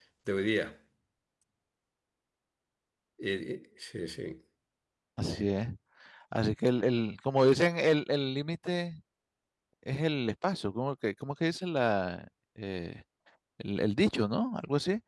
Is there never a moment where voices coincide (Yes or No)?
Yes